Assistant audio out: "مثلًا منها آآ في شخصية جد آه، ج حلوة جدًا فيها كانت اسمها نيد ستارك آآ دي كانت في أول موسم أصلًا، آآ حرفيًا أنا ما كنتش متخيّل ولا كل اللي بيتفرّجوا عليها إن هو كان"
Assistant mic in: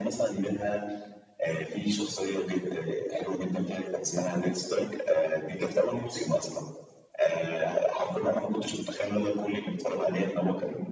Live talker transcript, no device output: none

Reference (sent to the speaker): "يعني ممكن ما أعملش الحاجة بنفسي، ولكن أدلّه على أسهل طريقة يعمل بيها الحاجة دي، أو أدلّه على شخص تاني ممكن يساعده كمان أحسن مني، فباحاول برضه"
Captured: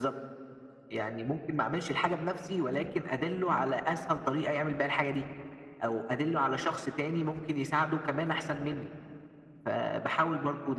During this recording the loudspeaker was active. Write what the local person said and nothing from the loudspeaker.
none

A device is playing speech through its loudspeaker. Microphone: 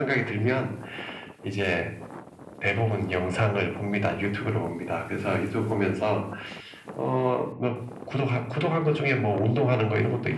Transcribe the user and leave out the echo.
none

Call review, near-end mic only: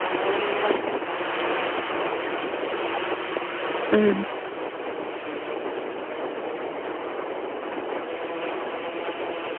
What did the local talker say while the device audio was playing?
ம்.

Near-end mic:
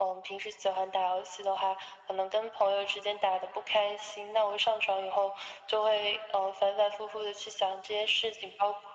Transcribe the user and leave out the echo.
none

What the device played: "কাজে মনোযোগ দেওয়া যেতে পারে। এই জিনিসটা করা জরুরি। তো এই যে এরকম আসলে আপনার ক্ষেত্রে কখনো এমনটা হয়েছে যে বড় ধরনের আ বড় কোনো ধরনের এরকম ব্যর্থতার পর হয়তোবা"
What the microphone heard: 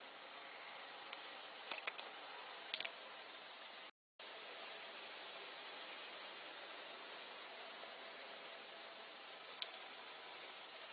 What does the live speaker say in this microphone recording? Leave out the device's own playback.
none

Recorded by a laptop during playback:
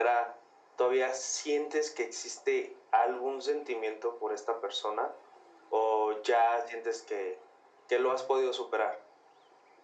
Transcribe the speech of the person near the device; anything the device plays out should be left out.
none

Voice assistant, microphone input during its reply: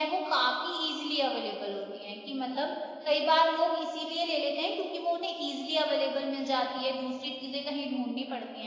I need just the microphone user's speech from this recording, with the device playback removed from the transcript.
none

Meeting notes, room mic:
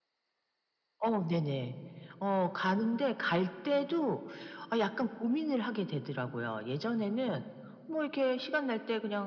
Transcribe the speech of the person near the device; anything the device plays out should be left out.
none

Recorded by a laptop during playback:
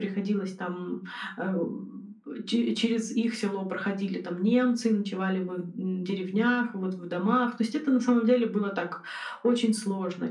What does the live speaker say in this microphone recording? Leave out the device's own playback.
none

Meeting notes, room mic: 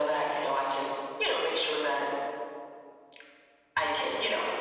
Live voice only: none

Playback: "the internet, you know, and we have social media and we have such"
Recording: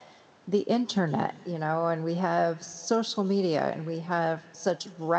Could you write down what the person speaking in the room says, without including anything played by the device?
none

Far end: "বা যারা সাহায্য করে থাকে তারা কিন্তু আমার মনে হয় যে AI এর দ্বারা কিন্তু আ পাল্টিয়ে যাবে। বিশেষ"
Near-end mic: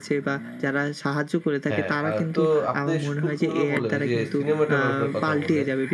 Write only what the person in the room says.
হ্যাঁ, আ তো আপনি সু খুব সুন্দর করে বললেন, এই যে সিনেমাটোগ্রাফার কথা বললেন,

